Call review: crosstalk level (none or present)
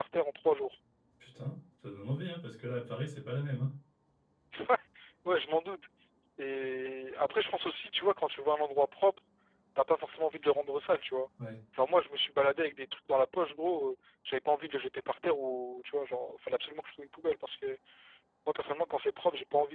none